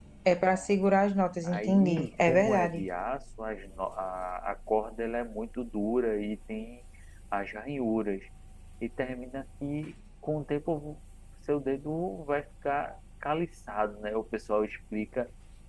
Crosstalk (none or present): present